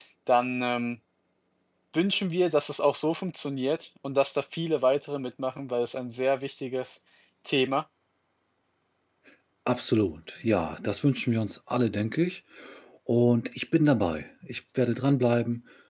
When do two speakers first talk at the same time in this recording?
none

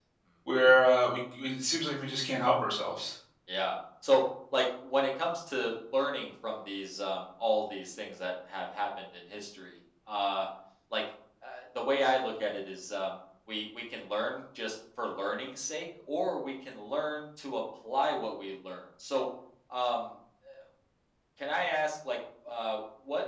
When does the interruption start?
none

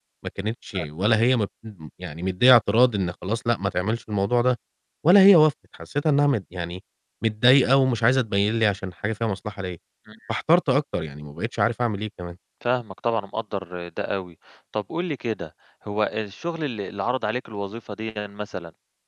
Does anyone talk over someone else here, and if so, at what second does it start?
none

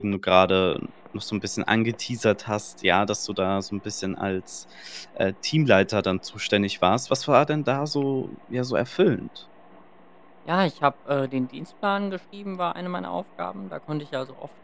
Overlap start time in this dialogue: none

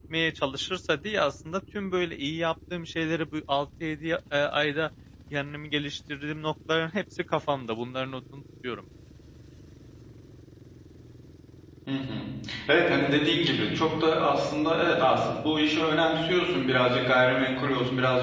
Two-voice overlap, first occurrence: none

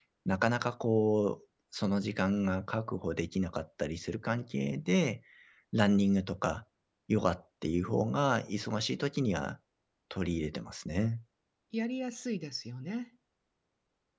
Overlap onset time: none

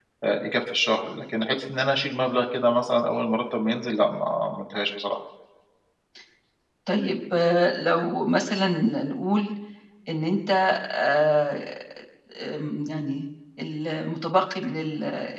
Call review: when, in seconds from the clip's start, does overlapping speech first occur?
none

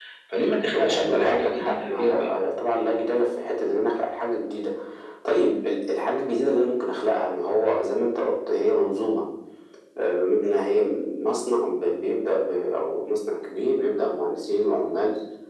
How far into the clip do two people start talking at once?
0.7 s

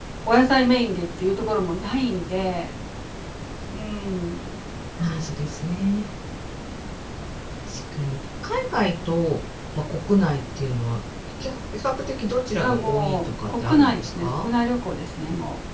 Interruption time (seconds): 12.6 s

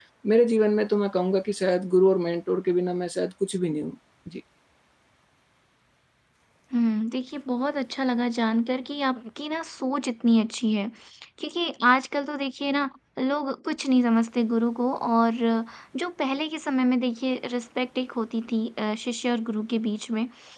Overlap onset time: none

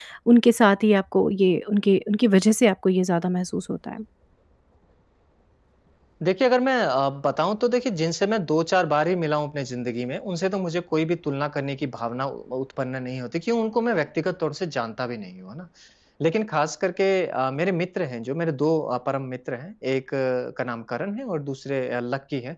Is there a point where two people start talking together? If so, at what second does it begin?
none

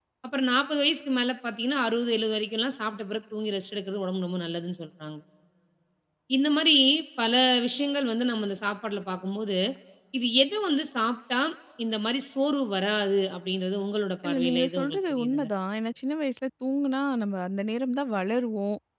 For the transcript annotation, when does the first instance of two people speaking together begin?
14.2 s

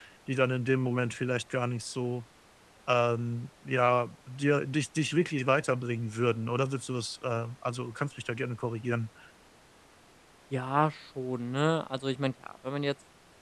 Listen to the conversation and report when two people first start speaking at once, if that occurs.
none

